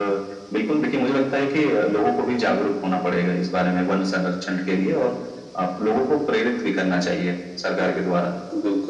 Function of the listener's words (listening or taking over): taking over